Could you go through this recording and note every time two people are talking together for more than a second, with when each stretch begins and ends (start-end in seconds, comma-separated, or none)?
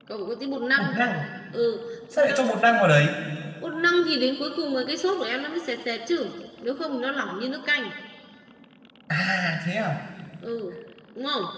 none